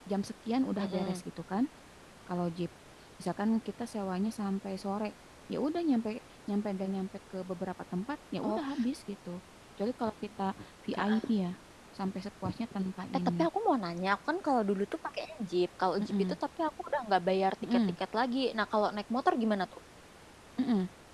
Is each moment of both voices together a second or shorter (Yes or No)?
Yes